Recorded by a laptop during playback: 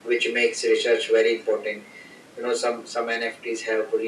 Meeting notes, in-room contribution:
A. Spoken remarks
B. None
B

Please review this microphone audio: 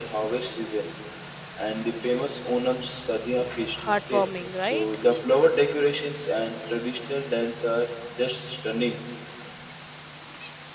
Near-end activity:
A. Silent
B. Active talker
B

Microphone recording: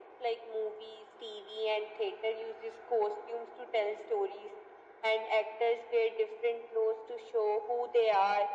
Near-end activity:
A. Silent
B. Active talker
A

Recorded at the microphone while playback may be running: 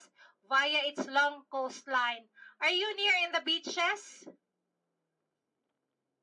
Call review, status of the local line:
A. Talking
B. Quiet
B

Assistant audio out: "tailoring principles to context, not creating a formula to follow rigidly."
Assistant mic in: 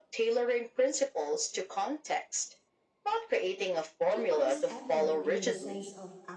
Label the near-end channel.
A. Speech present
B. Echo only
A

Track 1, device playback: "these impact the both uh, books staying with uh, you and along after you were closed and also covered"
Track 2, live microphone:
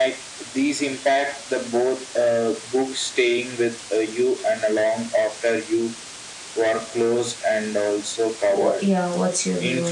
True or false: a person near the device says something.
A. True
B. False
A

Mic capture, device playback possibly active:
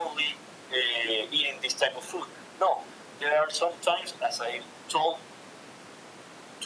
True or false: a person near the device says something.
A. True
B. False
B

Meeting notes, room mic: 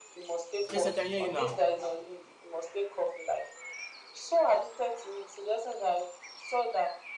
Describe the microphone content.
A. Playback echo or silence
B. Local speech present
B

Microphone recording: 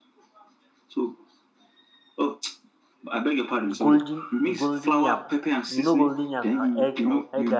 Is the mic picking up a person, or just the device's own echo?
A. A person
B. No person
A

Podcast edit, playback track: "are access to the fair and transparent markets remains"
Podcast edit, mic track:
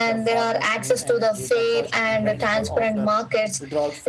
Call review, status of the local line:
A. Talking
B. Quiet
A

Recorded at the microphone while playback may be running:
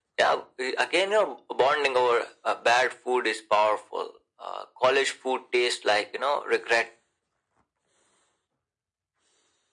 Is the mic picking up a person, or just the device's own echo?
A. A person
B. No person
B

